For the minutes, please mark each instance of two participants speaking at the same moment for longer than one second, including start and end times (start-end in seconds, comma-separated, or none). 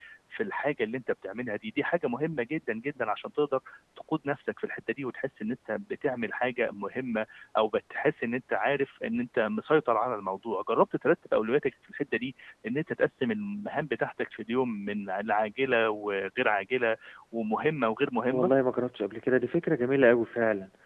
none